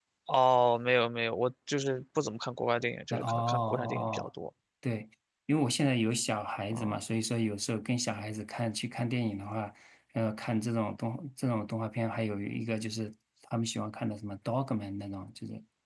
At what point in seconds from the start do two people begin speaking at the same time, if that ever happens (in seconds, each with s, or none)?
3.1 s